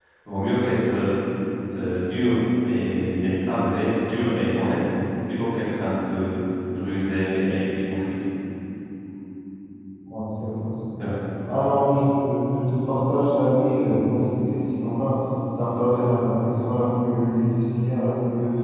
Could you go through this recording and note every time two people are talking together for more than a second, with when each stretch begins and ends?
none

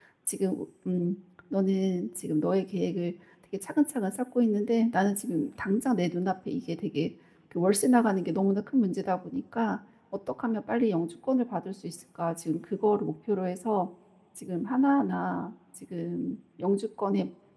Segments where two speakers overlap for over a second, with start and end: none

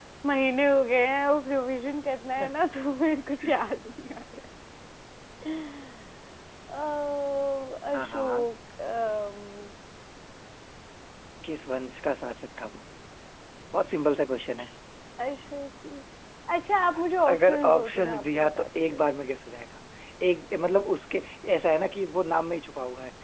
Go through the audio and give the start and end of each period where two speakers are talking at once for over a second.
17.3-19.0

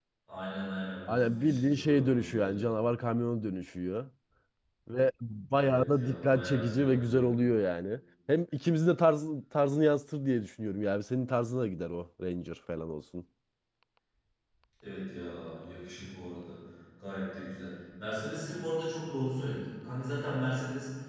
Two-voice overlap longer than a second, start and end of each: 1.1-2.6, 5.6-7.2

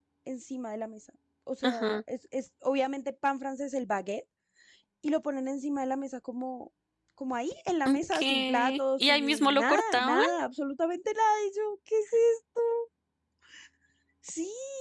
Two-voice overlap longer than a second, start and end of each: 7.8-10.2

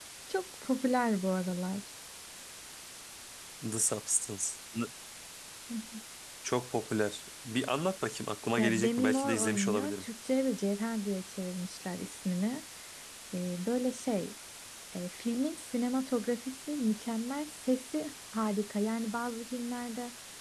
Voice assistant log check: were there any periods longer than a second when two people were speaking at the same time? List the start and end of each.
8.6-10.0

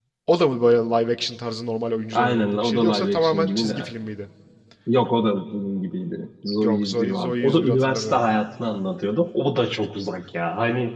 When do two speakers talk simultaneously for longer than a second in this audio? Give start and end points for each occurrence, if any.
2.1-3.9, 6.6-8.3

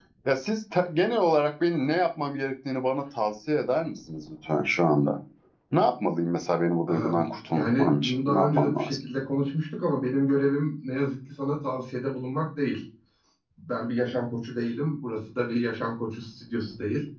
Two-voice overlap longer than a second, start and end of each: 7.5-9.0

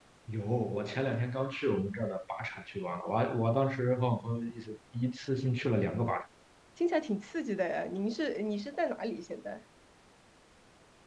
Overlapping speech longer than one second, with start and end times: none

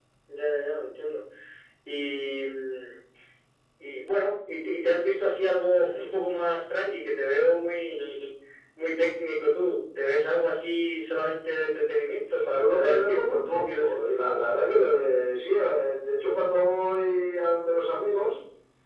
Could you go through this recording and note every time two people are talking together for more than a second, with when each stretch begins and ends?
12.4-14.4

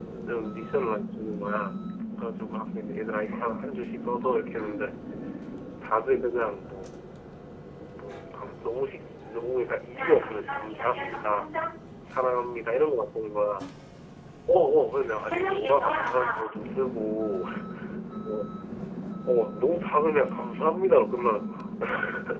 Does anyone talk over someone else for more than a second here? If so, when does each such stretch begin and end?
9.9-11.4, 15.1-16.5

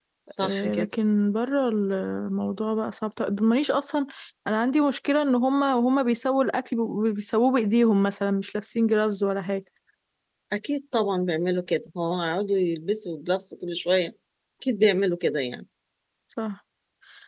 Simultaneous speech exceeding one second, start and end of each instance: none

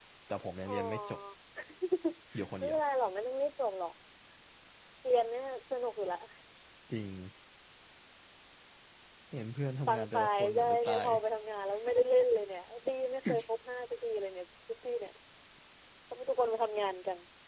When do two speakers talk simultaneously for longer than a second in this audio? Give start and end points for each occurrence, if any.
9.9-11.1

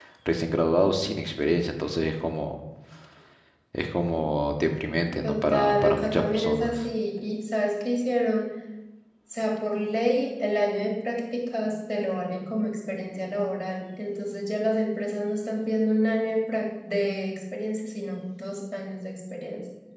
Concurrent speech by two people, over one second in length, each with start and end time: 5.2-6.8

